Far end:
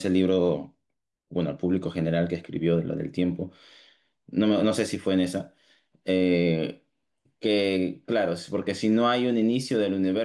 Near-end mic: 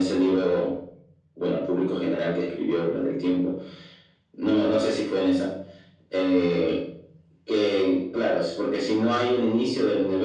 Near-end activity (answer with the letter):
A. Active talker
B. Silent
B